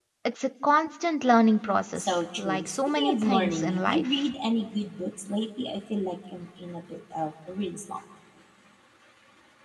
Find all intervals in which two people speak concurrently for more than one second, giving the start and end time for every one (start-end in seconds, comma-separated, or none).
2.0-4.1